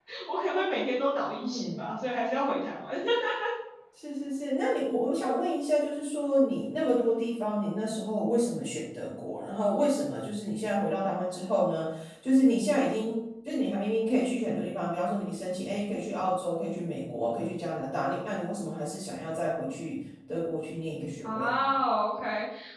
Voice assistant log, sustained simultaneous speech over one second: none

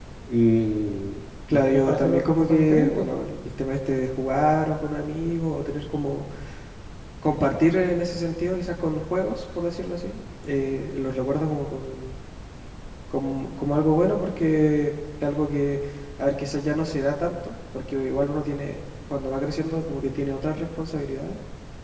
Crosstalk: present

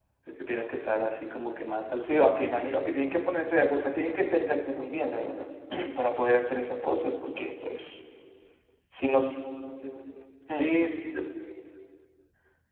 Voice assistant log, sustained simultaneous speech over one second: none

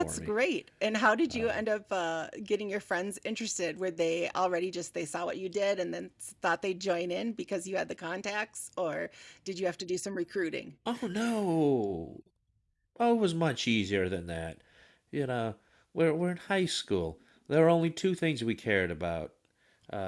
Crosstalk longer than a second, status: none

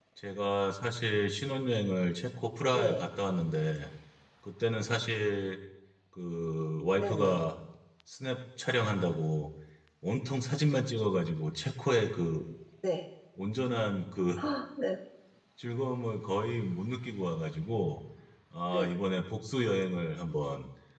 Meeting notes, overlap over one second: none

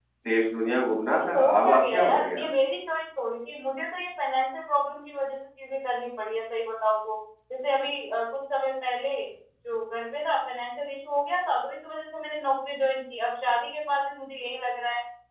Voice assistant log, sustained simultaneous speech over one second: present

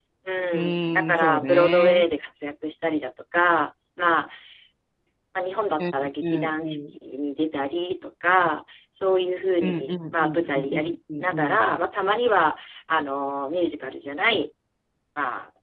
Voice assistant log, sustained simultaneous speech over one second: present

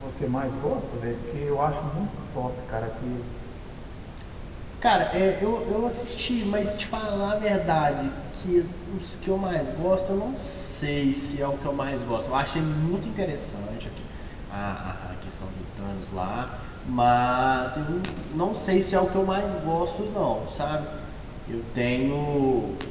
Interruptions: none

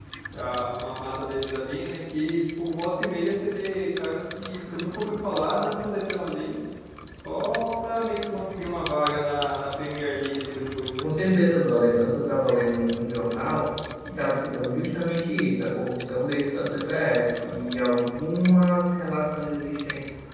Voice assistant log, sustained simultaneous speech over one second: none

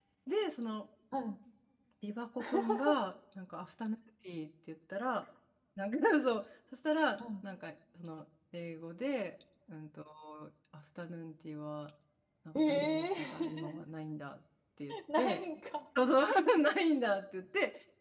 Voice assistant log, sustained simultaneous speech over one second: present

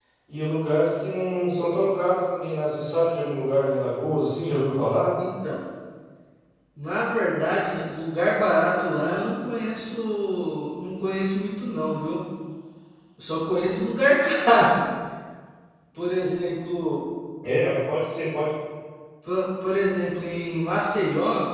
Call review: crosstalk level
none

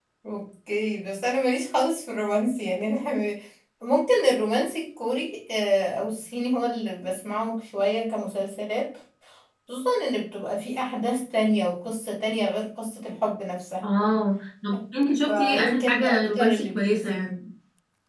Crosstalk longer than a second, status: present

